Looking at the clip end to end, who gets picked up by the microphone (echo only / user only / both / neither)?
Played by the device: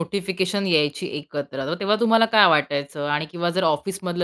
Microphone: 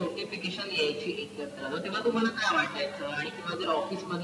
echo only